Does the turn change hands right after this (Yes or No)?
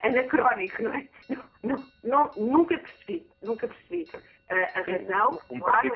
Yes